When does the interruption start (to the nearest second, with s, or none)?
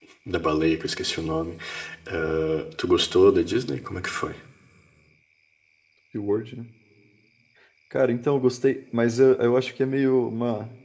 none